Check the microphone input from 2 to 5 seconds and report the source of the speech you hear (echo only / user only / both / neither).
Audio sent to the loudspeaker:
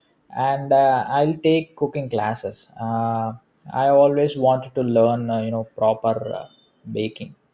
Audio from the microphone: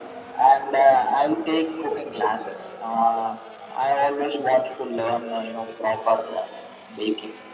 echo only